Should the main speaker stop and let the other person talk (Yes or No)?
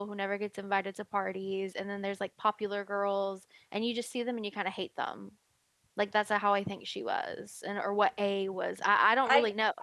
Yes